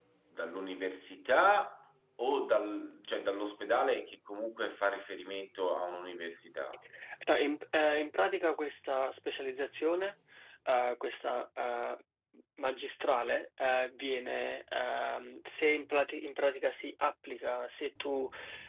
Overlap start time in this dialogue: none

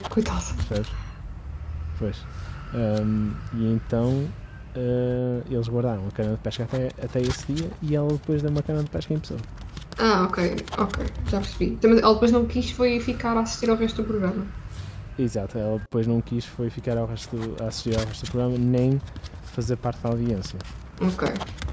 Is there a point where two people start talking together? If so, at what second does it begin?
none

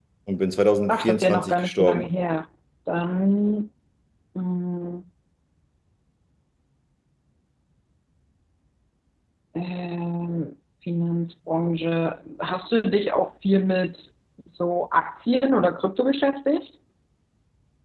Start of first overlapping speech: 1 s

